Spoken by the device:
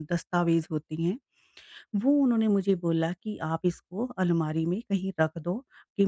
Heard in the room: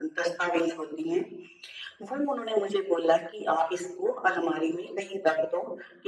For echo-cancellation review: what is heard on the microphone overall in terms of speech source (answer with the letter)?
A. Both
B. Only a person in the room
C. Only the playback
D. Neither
C